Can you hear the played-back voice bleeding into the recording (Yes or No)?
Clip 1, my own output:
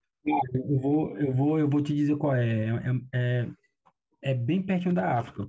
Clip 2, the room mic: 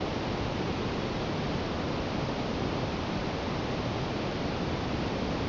No